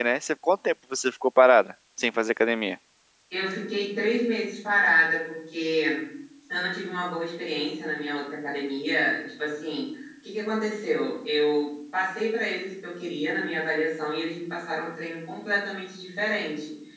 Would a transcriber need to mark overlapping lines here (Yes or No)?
No